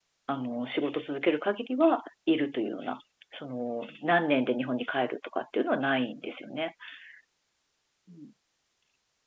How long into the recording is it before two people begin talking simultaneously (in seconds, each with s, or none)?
none